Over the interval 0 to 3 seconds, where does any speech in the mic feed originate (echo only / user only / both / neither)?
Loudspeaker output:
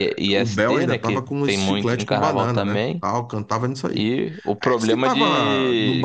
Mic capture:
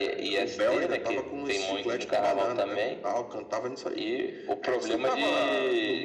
echo only